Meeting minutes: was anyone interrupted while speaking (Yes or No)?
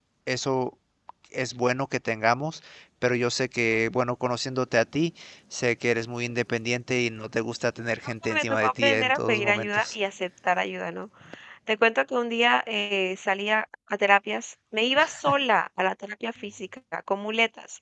Yes